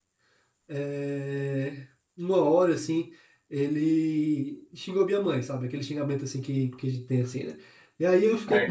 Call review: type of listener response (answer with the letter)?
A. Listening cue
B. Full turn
B